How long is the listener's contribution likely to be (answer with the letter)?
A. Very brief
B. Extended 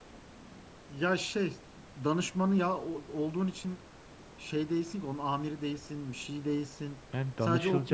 B